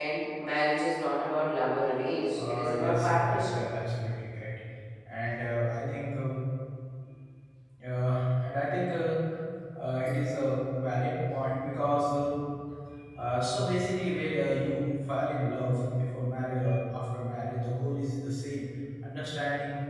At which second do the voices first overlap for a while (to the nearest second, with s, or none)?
2 s